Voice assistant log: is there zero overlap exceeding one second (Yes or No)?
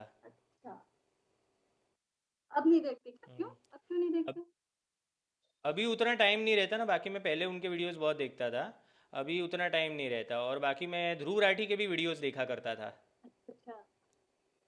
Yes